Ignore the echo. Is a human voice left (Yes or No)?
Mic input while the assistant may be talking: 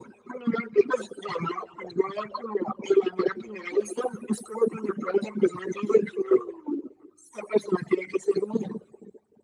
No